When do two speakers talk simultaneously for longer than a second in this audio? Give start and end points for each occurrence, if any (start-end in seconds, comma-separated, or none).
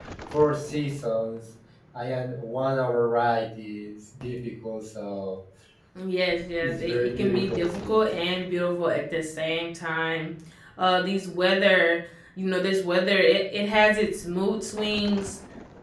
6.6-8.0